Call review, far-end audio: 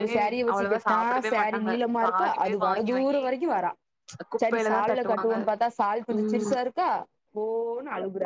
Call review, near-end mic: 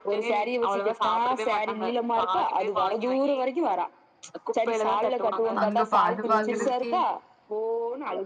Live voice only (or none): அங்க ப அது பாக்குறதுக்கே